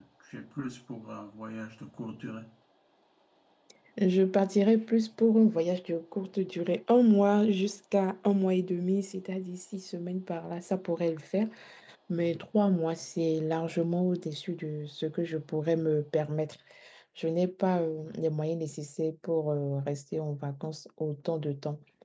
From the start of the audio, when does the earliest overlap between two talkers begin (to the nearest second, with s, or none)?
none